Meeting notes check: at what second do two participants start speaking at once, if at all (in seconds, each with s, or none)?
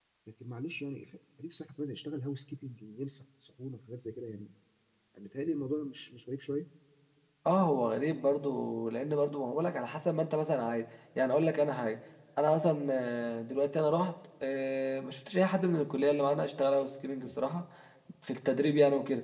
none